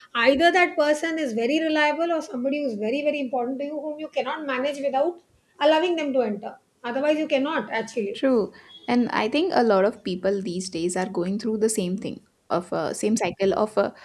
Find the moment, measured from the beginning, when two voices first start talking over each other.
none

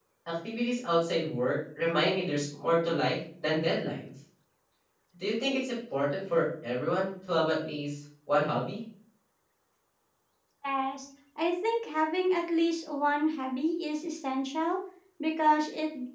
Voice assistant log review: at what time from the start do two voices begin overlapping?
none

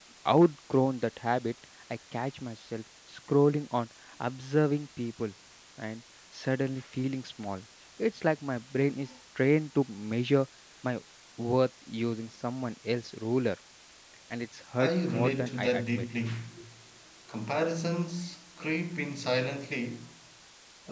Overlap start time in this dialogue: 15 s

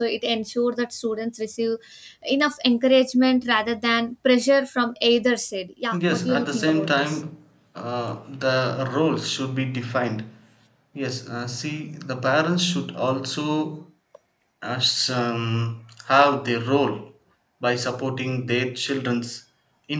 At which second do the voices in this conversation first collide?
6 s

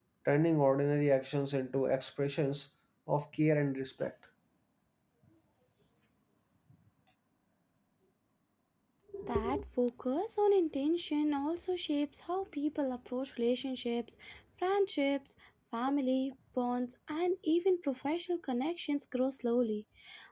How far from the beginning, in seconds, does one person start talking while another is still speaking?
none

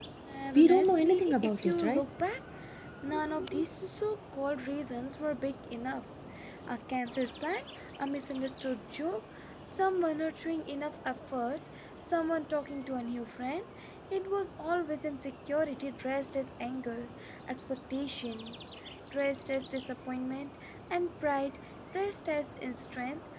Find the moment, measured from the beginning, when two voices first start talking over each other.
1 s

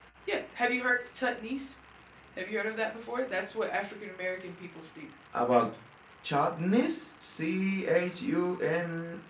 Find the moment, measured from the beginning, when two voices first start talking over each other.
none

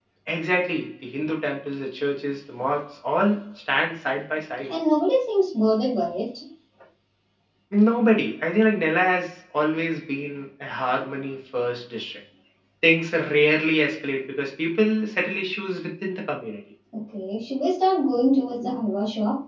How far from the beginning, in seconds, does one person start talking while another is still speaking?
none

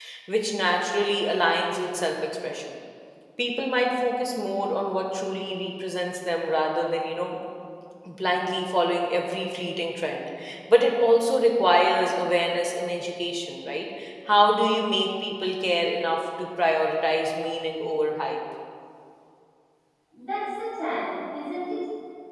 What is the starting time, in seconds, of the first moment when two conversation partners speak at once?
none

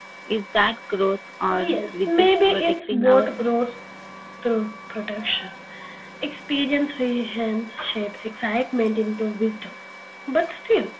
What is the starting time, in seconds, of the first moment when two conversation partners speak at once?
2 s

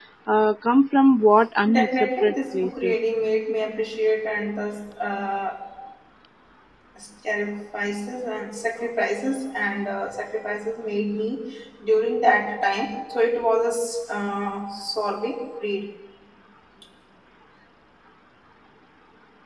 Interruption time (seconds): 2 s

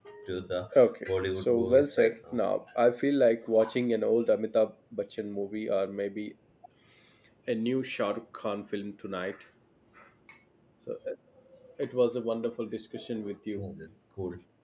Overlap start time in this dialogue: 1 s

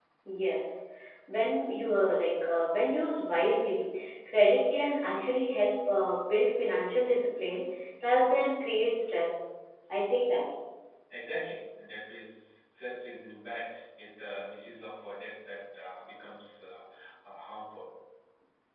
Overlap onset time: none

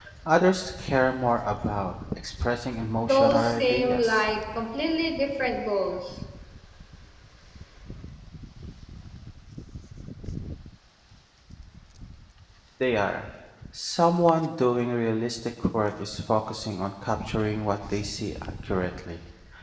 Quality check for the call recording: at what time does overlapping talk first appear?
3 s

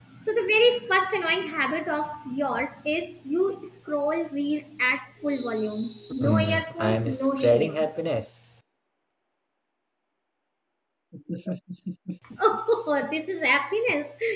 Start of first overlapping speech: 6 s

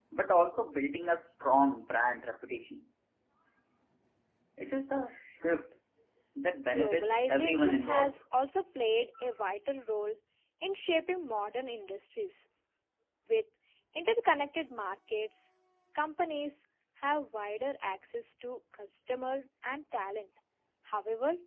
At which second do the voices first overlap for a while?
7 s

